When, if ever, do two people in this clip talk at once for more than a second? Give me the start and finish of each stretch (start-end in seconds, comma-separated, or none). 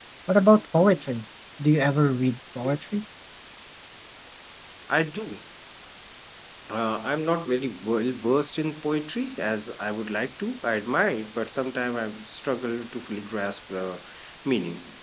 none